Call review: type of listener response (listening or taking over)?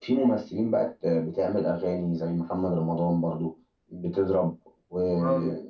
listening